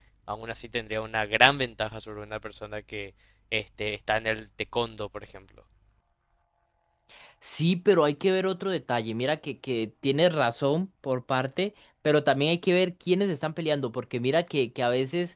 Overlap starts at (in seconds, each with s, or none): none